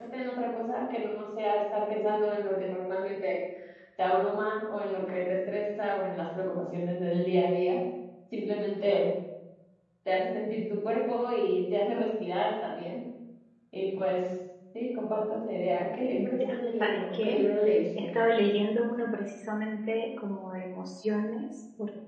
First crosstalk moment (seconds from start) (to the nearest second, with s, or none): 16 s